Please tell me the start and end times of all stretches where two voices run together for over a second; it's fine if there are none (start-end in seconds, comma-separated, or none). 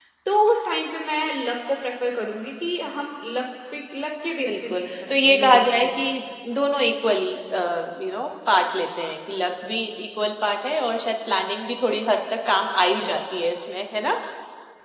4.5-6.0